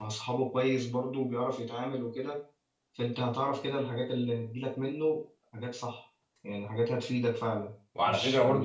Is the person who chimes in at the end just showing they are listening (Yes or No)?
No